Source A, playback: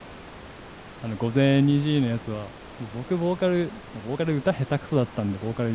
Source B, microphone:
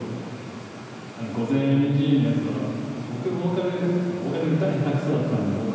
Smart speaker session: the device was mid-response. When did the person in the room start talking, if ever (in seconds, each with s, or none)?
none